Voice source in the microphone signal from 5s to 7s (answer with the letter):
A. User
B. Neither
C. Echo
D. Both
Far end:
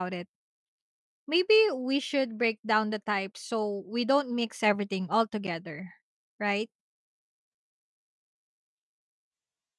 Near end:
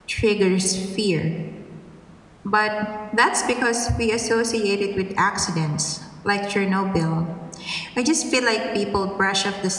A